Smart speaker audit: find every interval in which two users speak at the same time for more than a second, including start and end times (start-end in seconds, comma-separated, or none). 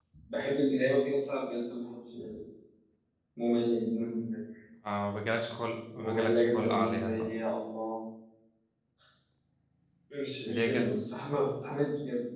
6.0-7.3